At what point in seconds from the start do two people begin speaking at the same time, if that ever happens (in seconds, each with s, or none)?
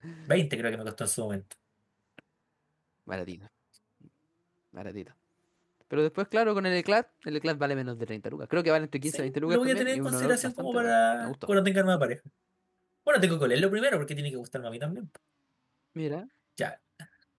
9.0 s